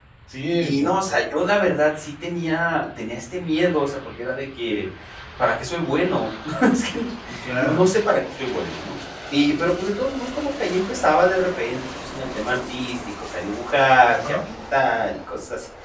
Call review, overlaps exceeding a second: none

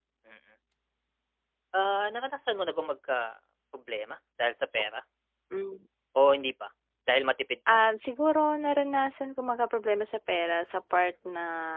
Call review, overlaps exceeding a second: none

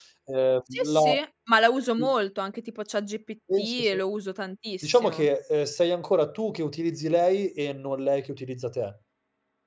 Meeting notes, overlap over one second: none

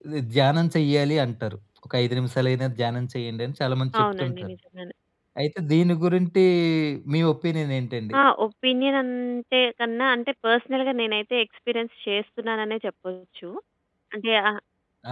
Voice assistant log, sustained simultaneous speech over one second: none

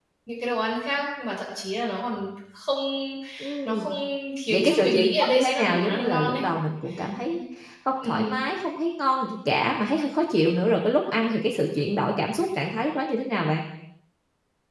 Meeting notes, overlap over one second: present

